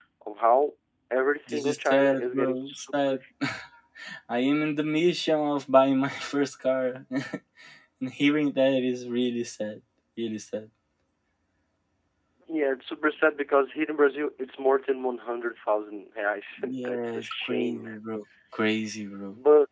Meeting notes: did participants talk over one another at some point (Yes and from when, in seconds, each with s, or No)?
Yes, from 1.5 s